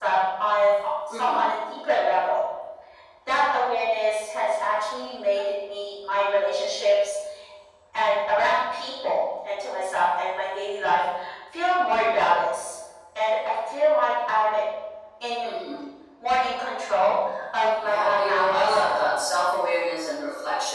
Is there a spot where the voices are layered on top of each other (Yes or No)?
Yes